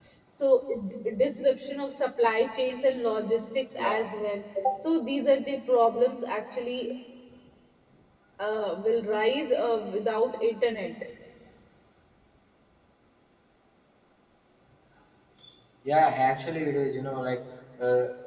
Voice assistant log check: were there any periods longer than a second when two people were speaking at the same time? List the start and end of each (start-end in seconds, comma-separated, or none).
none